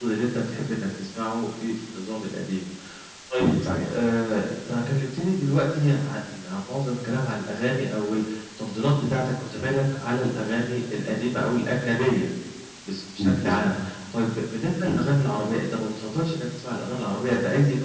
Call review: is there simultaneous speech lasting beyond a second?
No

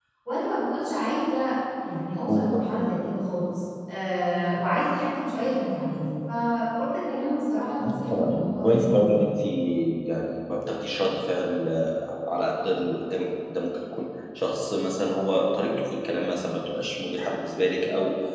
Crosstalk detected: Yes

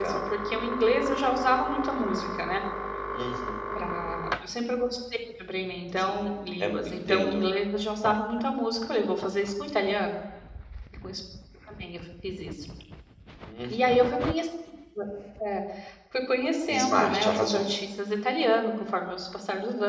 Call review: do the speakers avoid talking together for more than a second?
No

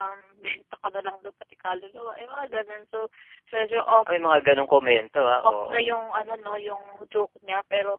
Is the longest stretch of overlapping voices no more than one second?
Yes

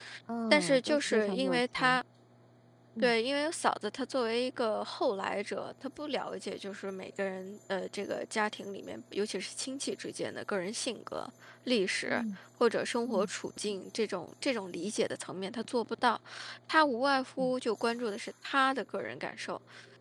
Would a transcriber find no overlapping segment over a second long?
No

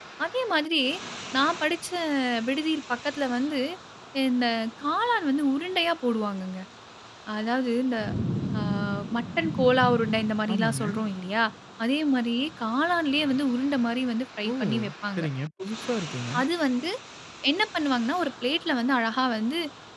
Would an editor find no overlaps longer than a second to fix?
Yes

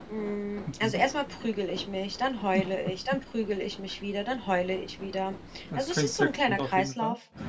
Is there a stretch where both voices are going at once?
Yes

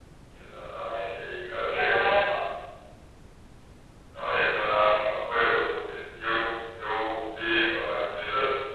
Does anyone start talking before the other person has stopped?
Yes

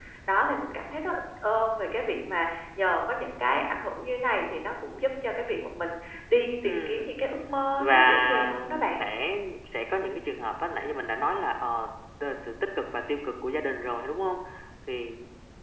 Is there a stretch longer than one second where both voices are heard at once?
Yes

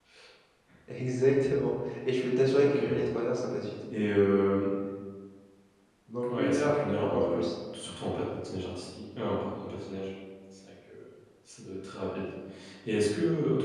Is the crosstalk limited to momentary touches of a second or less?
No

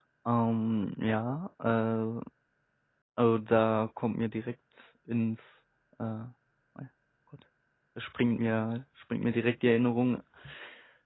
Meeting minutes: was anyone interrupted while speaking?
No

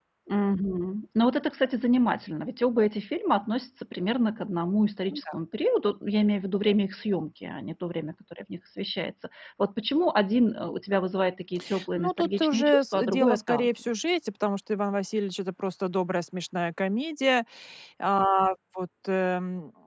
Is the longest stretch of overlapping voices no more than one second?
No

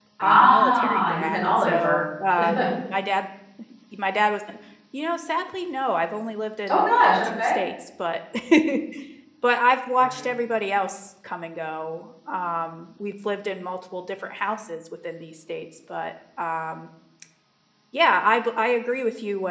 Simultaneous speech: Yes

